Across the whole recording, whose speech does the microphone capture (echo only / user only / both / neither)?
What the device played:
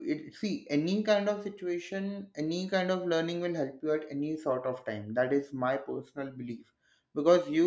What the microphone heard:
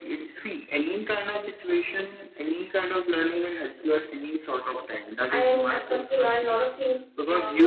both